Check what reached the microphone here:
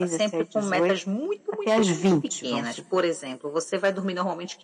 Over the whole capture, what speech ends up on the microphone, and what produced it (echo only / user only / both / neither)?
echo only